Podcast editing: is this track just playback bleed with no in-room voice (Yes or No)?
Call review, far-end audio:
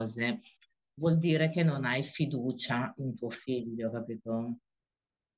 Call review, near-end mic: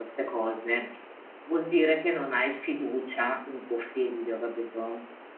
Yes